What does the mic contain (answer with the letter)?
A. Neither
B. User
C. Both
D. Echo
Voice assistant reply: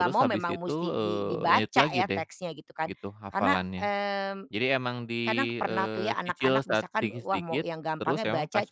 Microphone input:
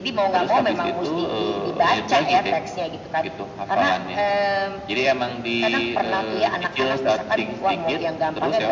D